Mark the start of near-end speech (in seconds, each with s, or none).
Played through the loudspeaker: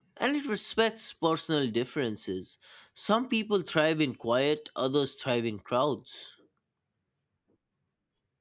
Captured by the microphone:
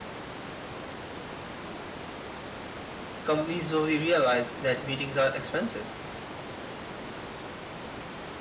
3.2 s